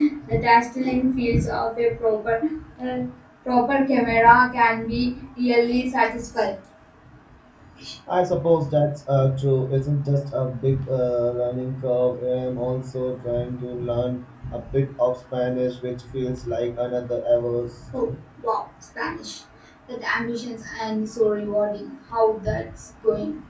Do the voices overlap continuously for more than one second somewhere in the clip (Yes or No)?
No